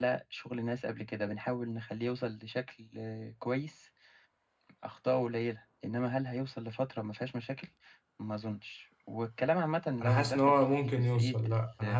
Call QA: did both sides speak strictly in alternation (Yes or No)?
No